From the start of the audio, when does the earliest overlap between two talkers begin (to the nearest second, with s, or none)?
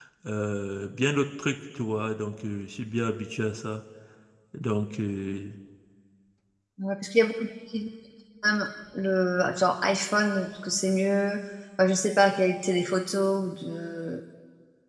none